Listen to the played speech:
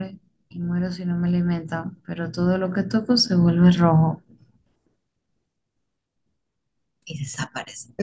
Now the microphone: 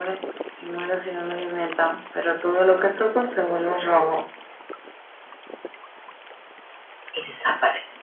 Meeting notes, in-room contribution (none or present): none